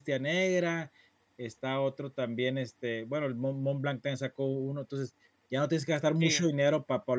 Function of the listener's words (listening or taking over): listening